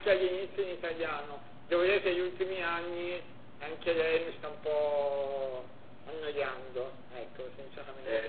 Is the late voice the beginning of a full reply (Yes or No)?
Yes